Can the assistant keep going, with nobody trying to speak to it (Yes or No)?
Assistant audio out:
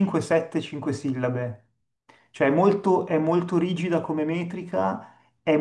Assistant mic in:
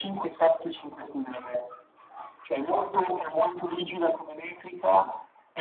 Yes